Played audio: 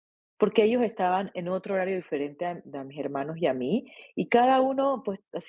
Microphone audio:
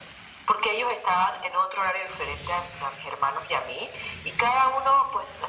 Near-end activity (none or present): none